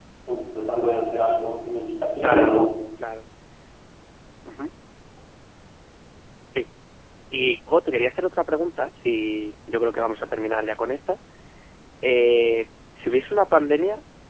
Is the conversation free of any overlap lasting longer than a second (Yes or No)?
Yes